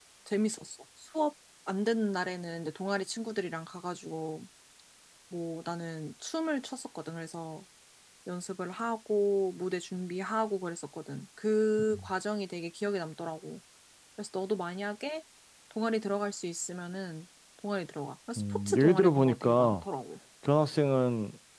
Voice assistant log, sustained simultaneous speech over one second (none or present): present